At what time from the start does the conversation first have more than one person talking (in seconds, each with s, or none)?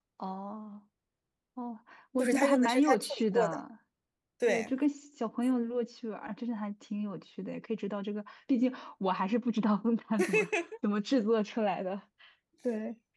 2.2 s